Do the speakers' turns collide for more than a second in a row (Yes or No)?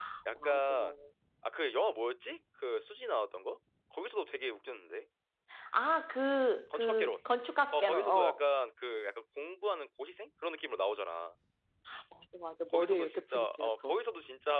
Yes